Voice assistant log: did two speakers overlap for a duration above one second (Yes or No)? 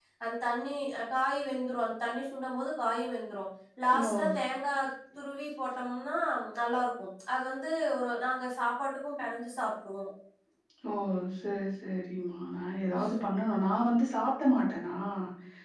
No